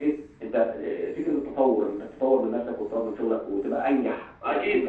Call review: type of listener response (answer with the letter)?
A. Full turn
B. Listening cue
A